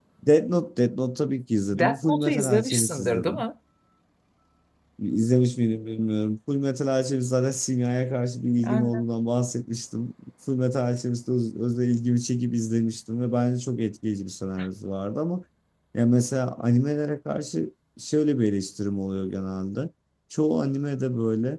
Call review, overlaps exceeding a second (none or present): present